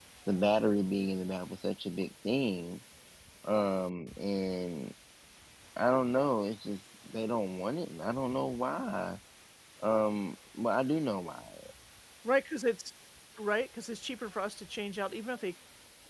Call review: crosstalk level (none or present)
none